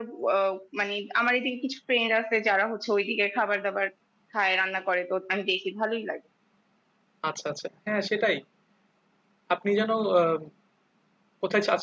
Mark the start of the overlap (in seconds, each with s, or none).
none